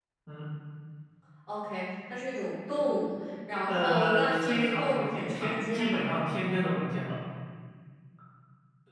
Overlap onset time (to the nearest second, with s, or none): 4 s